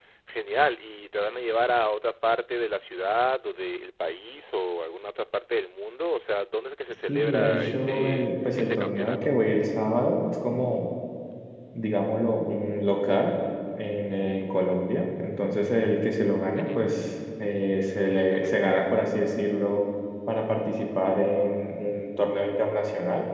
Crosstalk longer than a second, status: present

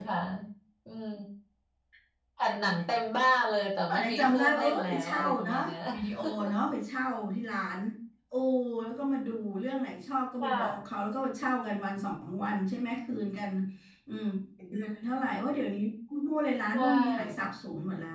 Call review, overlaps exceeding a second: present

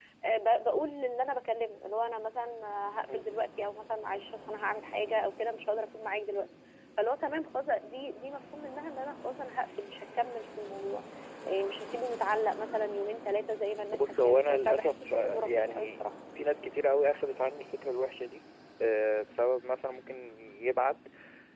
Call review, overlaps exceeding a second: present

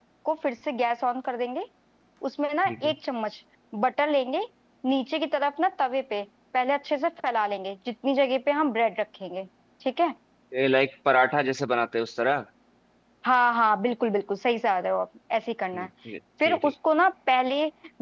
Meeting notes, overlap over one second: none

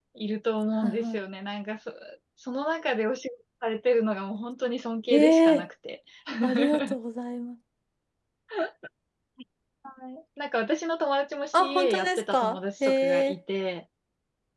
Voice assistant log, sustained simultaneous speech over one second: present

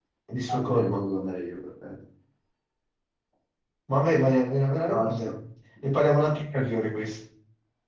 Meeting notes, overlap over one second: none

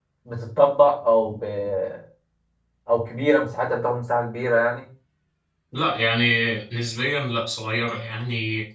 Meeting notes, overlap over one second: none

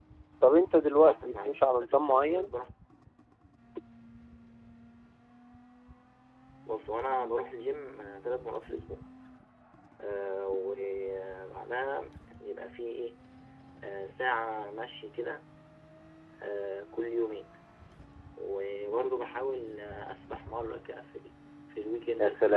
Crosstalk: present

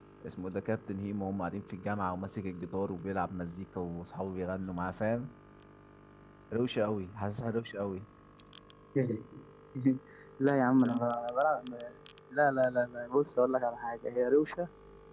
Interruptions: none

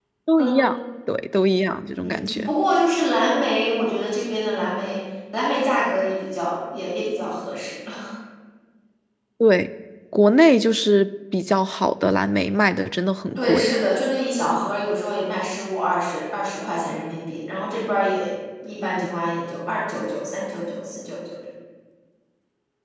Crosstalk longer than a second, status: none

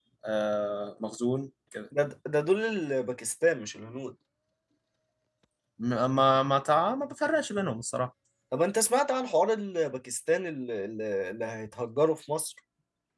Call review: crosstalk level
none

